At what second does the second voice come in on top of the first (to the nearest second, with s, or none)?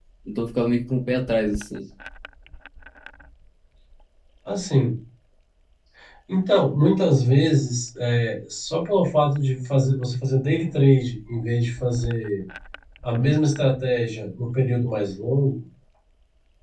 none